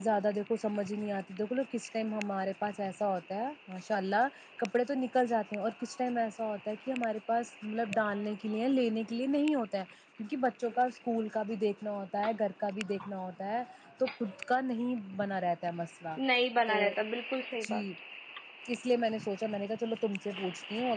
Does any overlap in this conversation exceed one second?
No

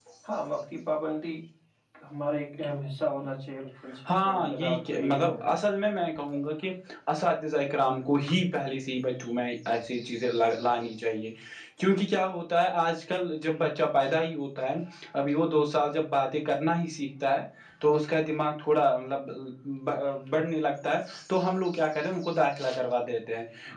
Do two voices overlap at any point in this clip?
Yes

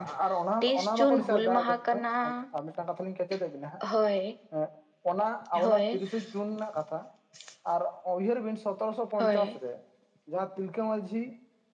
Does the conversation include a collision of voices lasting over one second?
Yes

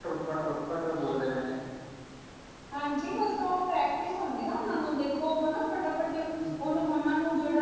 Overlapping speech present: No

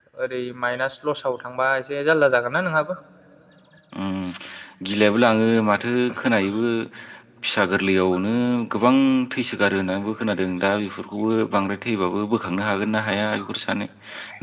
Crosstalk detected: No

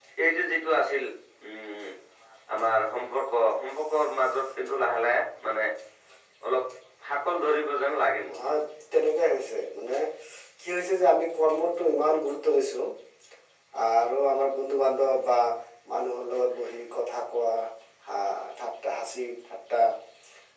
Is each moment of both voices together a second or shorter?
Yes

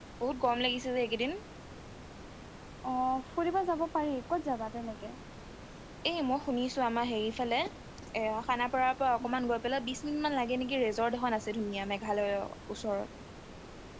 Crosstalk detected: No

